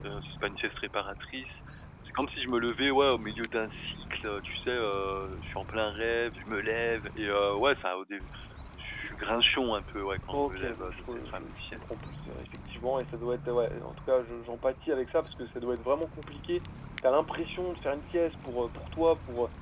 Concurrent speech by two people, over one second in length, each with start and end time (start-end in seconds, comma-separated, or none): 10.3-11.9